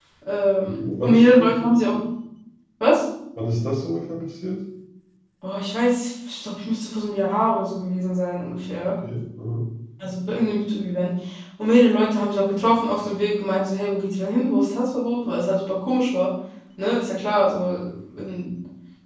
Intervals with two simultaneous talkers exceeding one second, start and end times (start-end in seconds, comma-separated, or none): 0.7-1.9